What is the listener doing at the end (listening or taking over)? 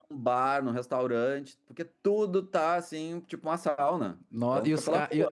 taking over